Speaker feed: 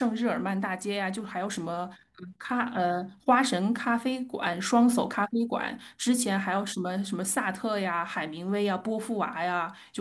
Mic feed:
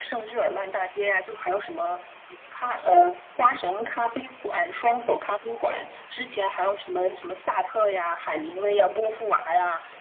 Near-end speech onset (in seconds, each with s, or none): none